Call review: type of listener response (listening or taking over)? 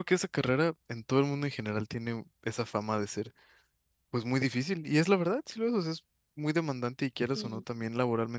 listening